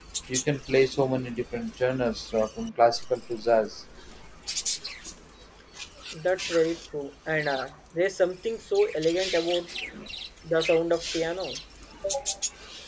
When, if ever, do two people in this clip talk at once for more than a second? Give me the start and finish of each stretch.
none

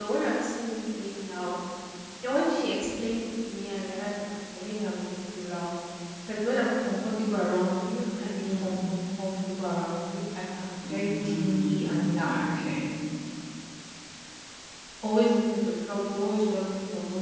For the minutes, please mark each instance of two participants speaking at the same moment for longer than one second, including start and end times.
10.9-12.3

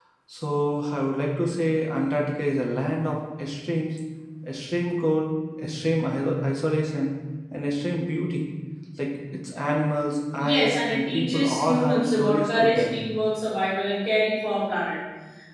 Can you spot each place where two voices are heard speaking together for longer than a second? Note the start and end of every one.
10.4-13.0

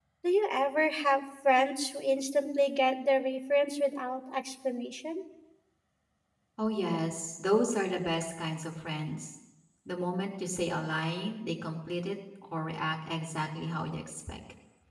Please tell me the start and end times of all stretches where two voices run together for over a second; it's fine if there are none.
none

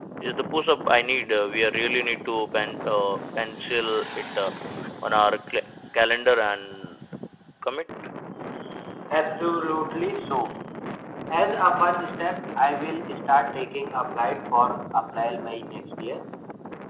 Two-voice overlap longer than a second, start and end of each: none

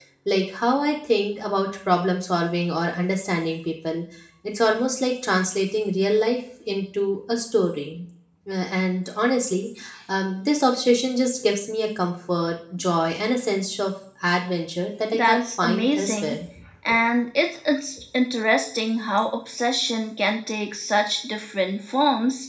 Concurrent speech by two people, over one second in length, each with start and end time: 15.1-16.4

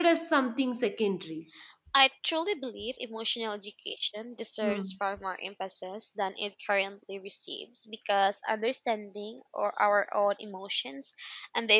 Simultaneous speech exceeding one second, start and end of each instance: none

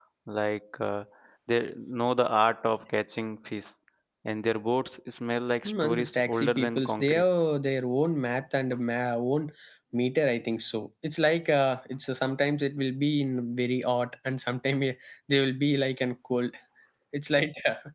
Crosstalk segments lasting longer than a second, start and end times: 5.7-7.2

